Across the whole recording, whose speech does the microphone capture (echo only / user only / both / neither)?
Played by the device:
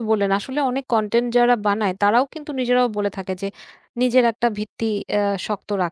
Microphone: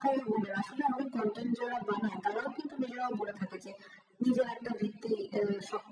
echo only